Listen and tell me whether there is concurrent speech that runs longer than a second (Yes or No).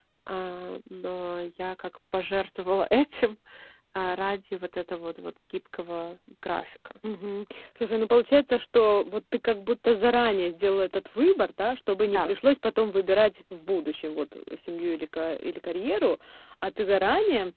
No